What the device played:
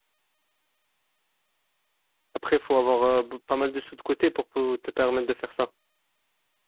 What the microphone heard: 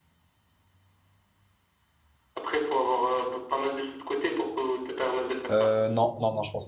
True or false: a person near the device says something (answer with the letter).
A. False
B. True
B